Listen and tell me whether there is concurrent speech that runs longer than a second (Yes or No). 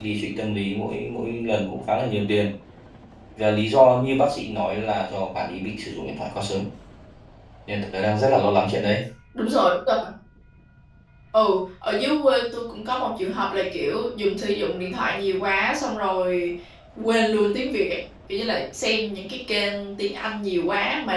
No